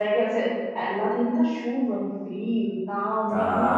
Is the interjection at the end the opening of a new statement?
No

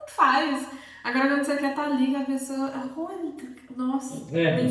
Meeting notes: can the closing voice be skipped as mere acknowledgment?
No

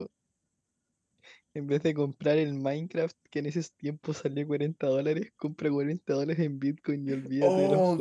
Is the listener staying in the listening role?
No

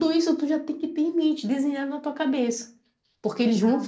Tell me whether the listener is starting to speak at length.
No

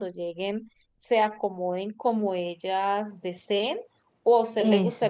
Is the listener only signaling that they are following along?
Yes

